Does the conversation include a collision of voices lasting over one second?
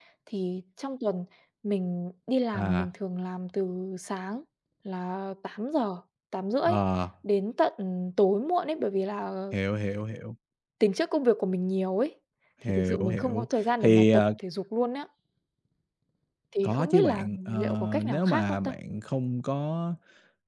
Yes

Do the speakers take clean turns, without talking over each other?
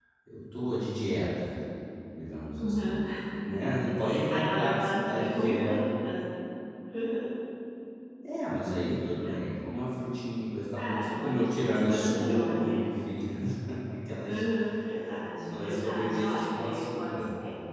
No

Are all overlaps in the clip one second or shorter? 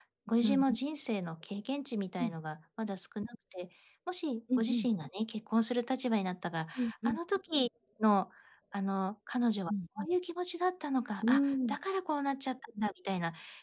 Yes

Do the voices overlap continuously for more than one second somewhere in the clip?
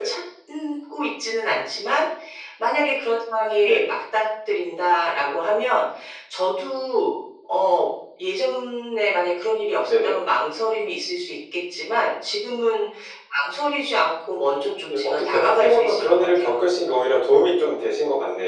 Yes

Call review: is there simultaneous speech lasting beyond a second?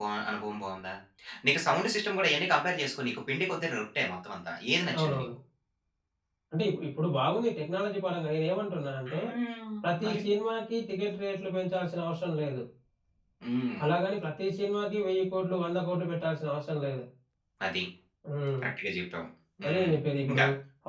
No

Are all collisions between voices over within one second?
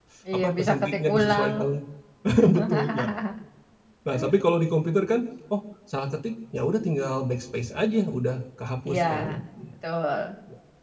No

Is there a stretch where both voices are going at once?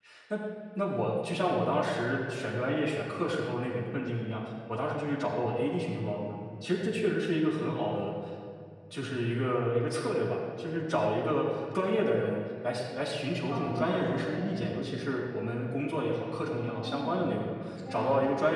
Yes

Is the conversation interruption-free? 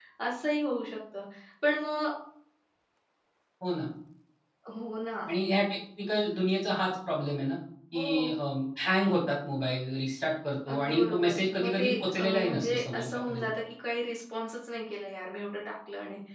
No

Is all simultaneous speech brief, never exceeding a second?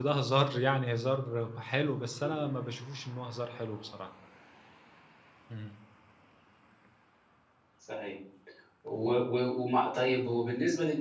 Yes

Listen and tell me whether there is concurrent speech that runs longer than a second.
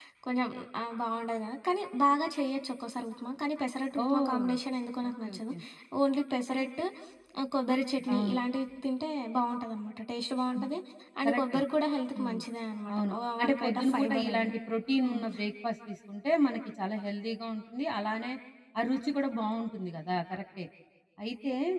Yes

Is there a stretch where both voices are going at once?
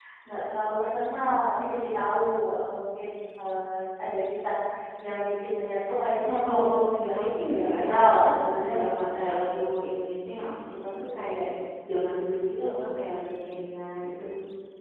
Yes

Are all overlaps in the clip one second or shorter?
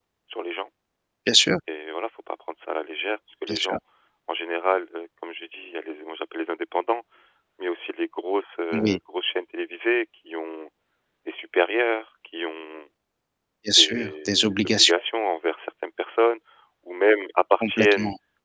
No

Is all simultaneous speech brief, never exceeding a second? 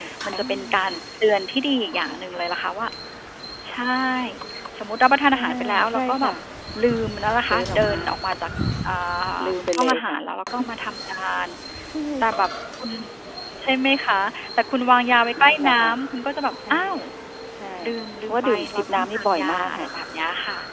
No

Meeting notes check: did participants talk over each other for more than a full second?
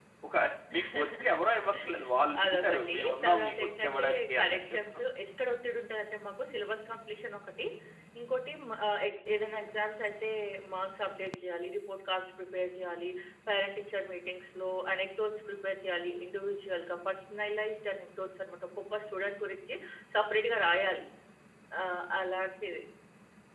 Yes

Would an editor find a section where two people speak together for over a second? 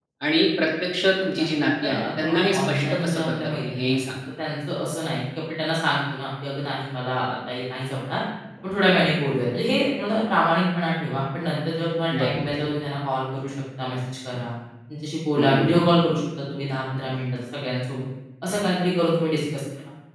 Yes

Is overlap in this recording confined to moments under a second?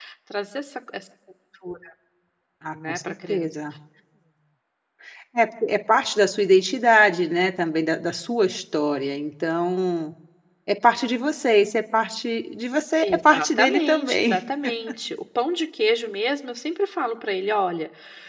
No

